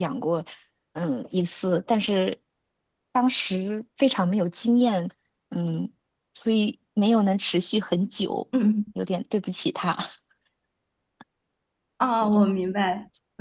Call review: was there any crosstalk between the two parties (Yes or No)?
No